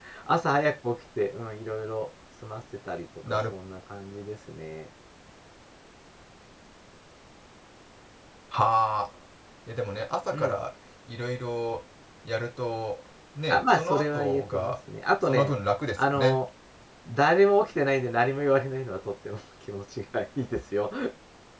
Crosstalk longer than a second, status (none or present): present